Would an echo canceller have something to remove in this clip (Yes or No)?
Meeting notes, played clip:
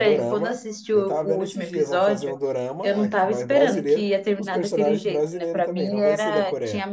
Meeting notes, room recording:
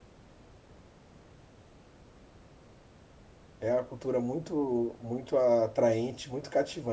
No